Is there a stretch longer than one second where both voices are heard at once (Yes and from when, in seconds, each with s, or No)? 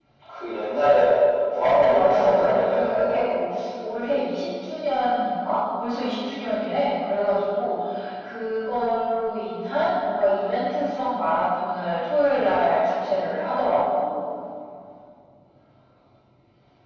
Yes, from 1.7 s